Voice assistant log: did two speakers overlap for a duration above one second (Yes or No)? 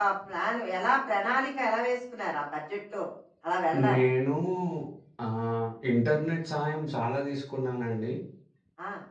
No